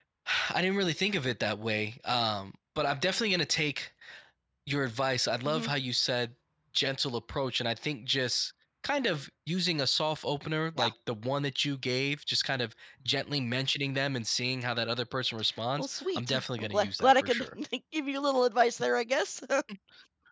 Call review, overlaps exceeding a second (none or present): present